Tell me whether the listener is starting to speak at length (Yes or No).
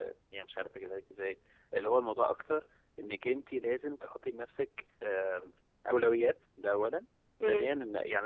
No